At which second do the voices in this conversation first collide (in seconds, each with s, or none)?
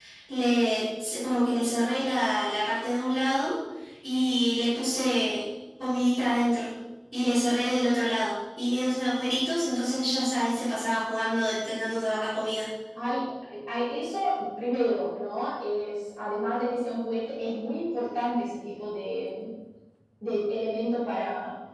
none